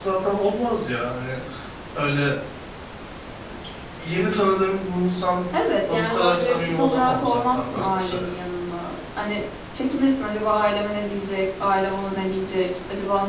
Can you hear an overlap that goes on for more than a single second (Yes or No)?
Yes